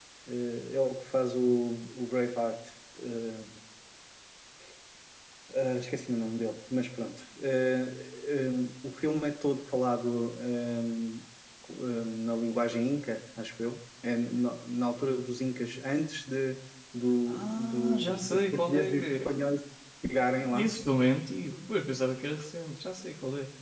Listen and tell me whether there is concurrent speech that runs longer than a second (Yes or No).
Yes